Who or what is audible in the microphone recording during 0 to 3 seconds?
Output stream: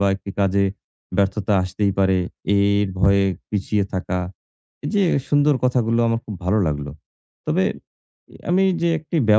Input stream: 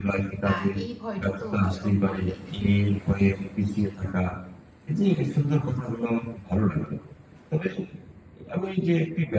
both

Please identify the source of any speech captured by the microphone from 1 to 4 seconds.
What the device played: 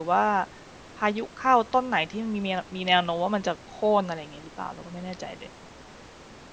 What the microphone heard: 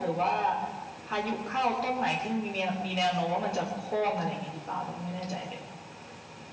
echo only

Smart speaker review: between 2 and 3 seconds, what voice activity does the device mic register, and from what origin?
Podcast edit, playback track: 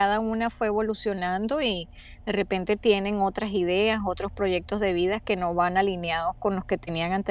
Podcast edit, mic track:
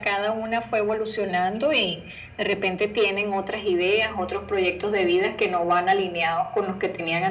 echo only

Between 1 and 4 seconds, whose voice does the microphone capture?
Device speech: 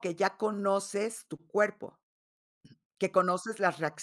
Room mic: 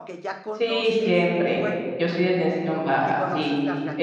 both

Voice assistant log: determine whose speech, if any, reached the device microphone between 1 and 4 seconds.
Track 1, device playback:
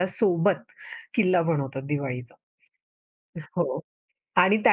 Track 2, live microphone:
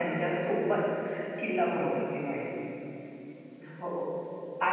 echo only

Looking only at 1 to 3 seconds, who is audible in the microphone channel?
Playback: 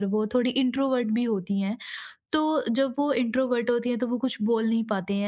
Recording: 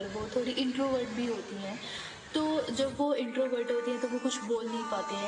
echo only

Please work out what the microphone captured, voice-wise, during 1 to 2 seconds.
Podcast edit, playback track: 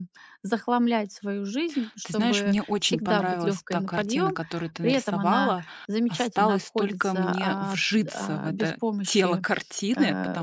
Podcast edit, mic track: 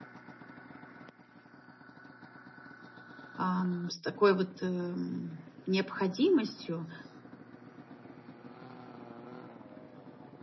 neither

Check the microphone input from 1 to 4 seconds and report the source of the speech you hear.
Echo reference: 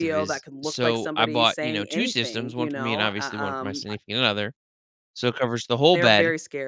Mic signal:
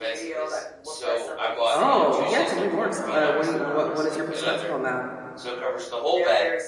both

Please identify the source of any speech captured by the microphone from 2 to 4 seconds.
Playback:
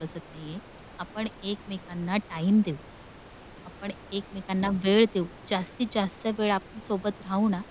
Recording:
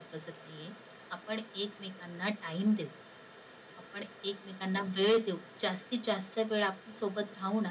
echo only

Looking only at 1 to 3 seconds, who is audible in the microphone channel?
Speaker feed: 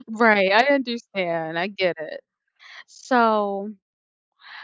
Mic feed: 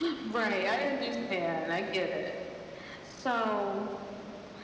echo only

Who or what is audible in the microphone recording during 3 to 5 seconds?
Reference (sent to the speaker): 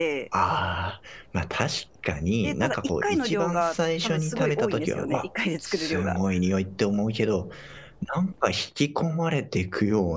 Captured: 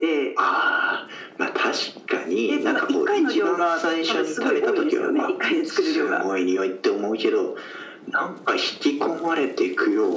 echo only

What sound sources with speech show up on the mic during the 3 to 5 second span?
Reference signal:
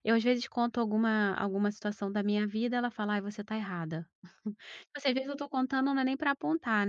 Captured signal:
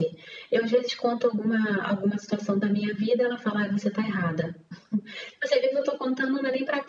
echo only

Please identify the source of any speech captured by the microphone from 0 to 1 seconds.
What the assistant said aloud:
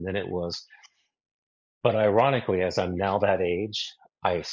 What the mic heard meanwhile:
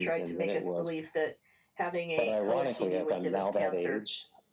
both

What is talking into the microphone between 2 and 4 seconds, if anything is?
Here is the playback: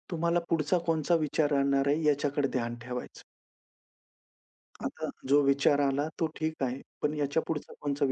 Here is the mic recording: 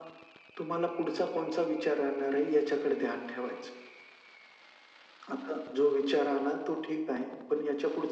echo only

